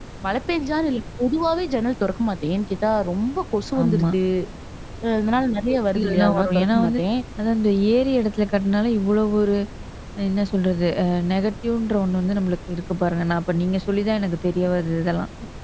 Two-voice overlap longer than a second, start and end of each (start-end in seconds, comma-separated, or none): 5.7-7.0